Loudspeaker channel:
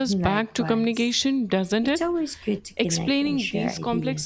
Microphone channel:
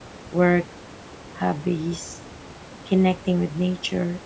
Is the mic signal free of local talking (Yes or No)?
No